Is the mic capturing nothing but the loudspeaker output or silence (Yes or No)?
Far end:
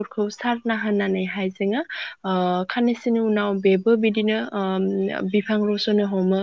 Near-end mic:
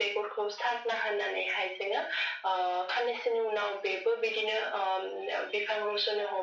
Yes